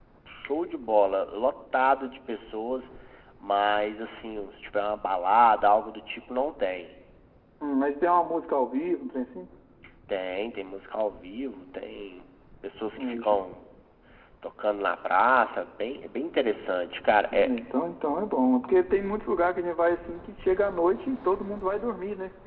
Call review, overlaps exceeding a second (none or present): none